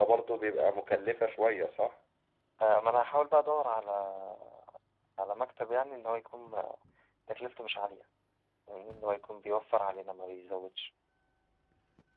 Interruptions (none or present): none